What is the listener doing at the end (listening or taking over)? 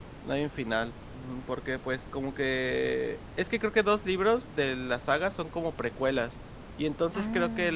listening